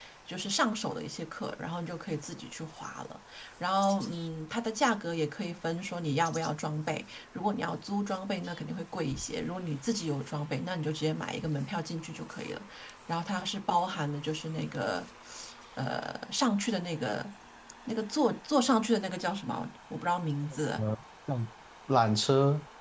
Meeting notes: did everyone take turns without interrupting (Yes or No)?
Yes